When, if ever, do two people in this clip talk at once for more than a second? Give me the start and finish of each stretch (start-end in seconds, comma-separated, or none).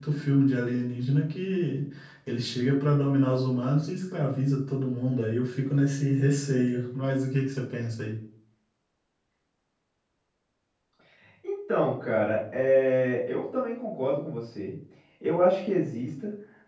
none